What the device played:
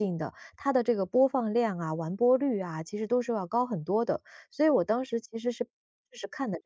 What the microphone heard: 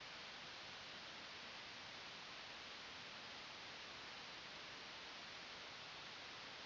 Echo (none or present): none